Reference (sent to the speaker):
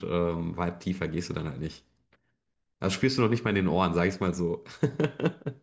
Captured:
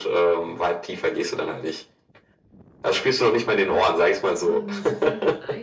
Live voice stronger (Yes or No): No